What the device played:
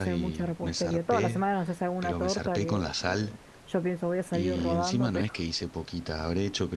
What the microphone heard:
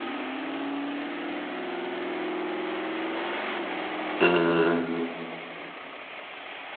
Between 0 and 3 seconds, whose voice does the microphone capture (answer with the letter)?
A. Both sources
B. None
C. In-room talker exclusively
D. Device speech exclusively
B